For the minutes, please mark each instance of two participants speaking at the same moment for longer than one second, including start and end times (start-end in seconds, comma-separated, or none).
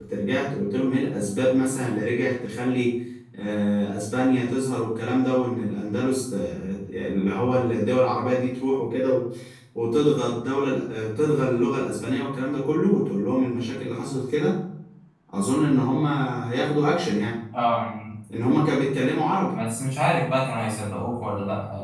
none